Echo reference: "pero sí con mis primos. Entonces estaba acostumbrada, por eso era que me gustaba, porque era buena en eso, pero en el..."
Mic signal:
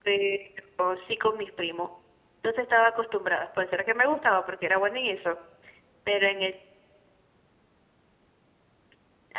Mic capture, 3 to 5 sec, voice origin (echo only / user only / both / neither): echo only